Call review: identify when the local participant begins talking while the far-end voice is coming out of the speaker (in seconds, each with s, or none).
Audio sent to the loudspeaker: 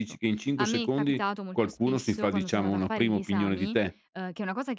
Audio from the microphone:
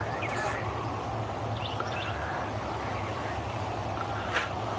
none